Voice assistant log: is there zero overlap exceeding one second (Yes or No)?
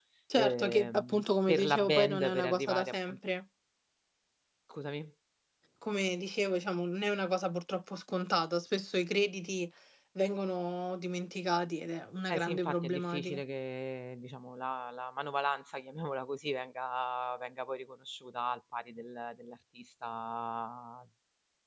No